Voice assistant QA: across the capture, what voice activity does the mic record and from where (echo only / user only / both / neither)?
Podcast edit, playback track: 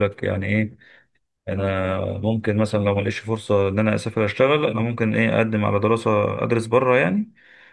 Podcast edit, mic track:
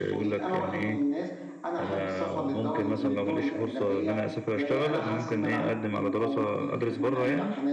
both